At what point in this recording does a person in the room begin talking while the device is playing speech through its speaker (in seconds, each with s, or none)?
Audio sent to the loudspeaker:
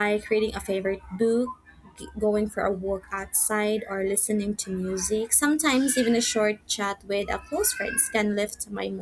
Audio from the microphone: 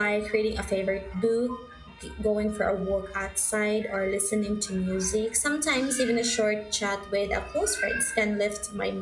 none